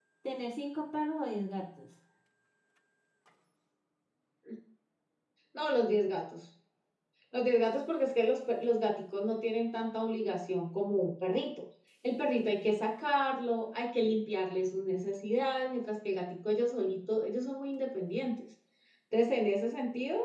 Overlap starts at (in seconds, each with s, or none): none